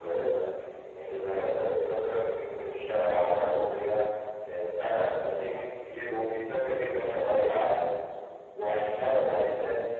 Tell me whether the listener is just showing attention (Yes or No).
Yes